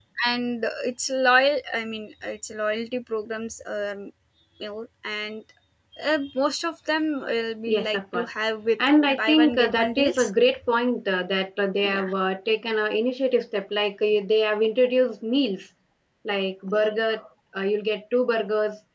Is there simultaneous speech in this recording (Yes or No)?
Yes